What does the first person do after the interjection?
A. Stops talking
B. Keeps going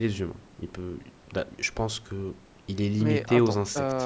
A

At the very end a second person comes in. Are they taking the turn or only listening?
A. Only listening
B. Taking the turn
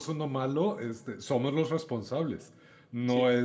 A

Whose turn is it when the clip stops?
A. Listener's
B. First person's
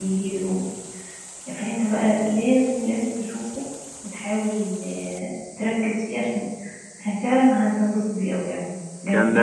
A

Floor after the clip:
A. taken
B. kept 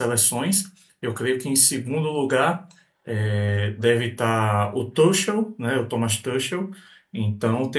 B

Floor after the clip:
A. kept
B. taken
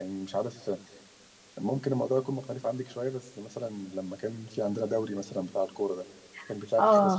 B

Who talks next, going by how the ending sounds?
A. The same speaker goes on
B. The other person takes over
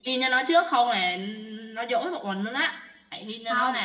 A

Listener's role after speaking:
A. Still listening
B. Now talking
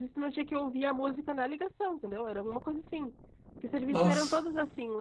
A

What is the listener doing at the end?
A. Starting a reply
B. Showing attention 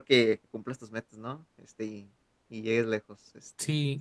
A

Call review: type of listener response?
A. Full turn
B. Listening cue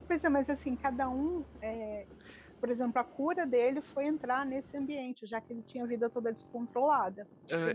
A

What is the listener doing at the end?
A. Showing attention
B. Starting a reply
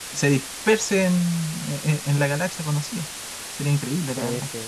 B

